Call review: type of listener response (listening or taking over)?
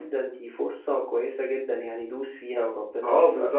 taking over